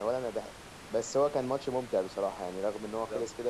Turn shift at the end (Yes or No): Yes